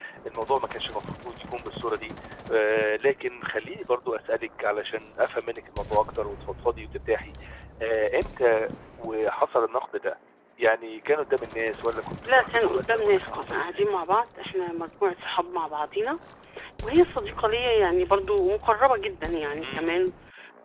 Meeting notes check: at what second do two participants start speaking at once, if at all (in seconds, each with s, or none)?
12.3 s